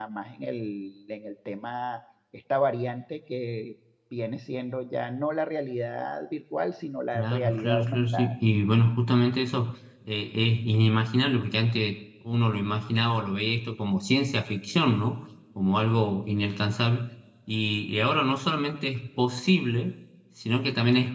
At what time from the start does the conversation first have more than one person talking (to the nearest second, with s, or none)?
7 s